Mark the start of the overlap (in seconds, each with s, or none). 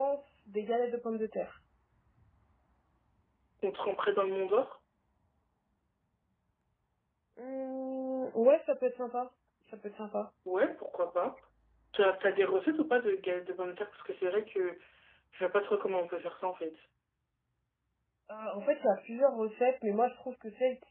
none